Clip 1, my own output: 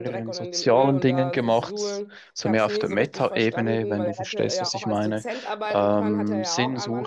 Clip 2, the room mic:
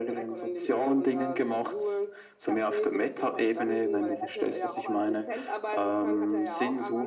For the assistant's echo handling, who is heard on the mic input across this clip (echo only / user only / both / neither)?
echo only